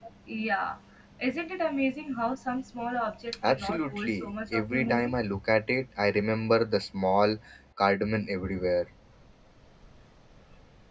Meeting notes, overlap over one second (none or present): present